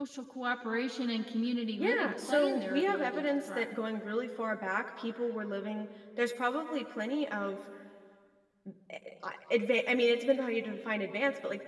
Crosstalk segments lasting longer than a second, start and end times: 1.8-3.8

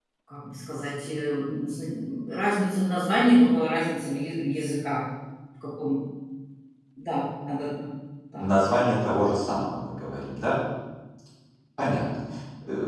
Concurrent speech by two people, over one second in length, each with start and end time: none

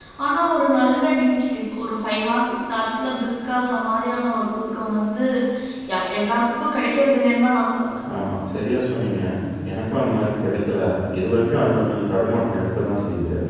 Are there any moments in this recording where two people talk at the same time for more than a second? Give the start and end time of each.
none

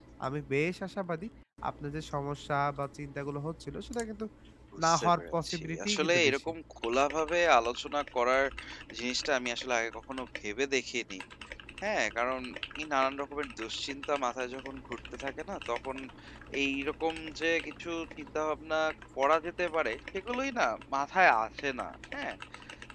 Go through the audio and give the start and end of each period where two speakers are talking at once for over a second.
4.8-6.5

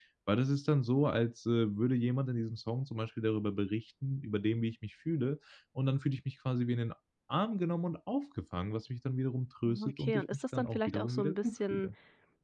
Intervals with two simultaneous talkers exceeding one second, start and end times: 9.6-11.9

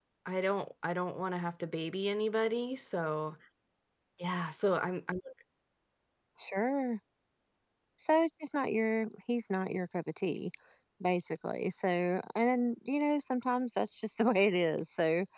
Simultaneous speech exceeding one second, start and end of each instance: none

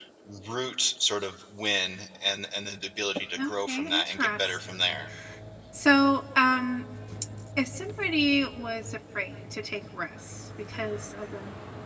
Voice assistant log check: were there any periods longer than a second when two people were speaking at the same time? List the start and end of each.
3.4-5.0

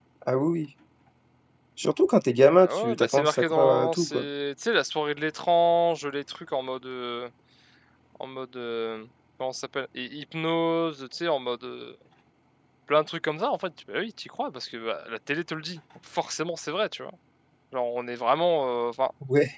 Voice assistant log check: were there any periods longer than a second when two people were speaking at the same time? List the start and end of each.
2.6-4.2

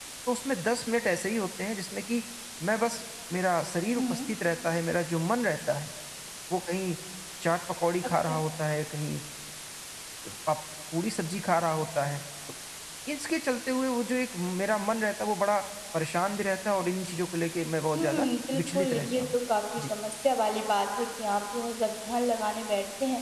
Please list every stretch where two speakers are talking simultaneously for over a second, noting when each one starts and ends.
18.0-19.4

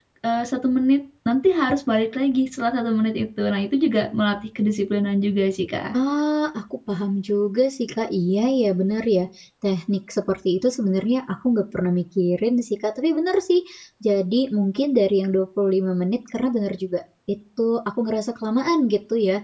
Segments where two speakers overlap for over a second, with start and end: none

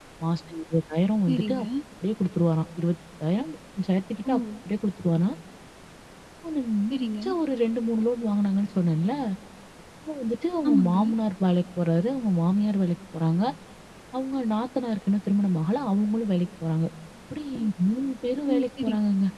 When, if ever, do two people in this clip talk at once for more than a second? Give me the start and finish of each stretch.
none

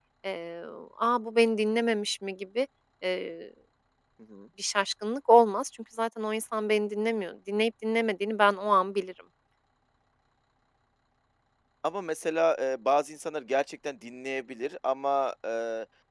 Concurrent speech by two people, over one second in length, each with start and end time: none

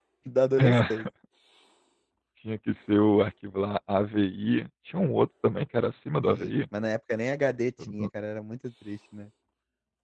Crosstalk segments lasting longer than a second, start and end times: none

